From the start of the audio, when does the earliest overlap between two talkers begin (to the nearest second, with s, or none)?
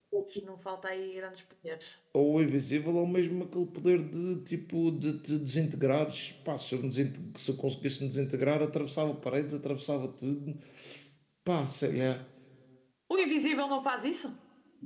none